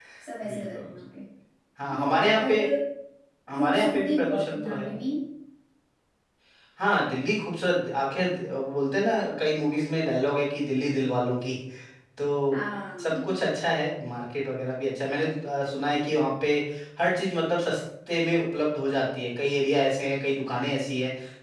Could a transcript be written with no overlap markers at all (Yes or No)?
No